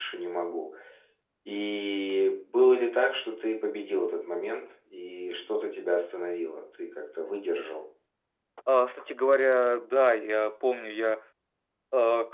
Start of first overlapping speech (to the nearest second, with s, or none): none